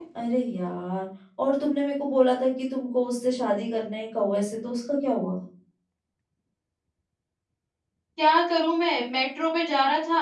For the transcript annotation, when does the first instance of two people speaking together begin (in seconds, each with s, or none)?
none